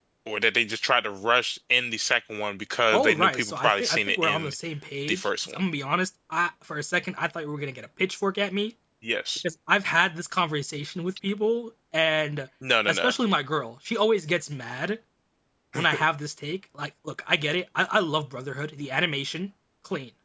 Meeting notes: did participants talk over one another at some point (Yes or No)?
Yes